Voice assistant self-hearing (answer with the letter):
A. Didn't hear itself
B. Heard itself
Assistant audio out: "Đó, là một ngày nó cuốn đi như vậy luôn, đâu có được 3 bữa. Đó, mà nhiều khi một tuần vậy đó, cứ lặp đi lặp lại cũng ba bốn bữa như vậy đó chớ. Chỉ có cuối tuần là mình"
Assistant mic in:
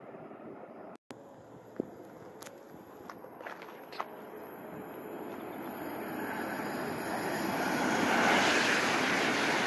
A